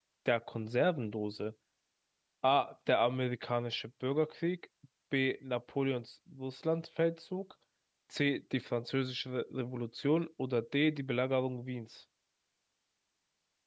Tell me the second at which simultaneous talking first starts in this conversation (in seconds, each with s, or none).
none